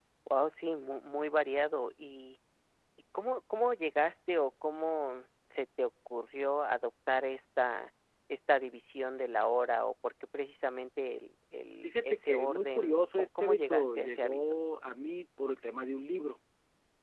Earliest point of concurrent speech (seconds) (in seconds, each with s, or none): 11.8 s